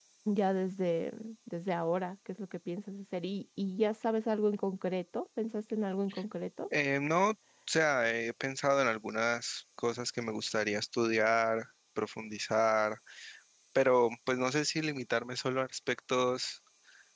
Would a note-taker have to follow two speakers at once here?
No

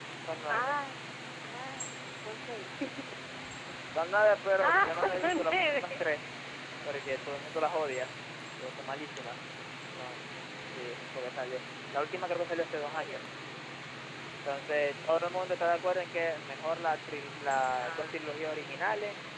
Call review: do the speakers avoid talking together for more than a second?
No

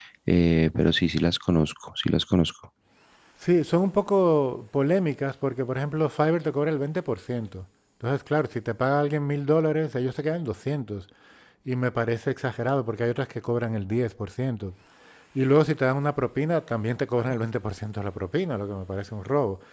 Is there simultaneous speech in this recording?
No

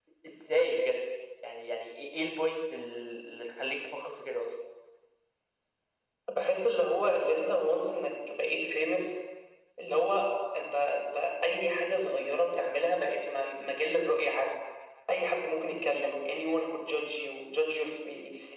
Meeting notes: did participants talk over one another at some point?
No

